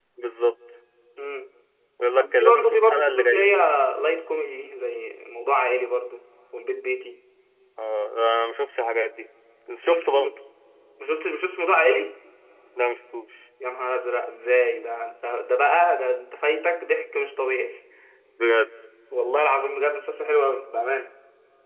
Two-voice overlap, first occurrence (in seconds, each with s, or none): 2.1 s